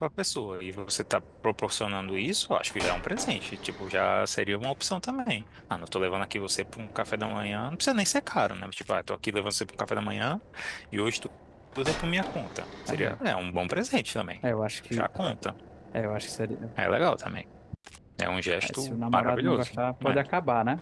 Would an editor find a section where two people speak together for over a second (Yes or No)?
Yes